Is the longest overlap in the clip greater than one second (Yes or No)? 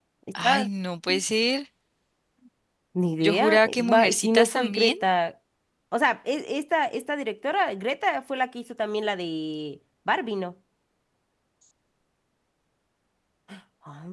Yes